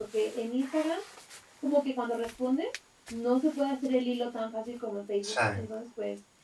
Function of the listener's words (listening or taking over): listening